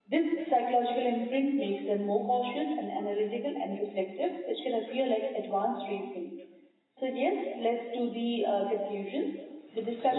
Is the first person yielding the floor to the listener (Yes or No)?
No